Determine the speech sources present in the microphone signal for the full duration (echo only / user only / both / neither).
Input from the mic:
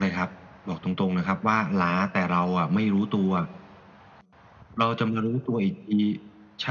echo only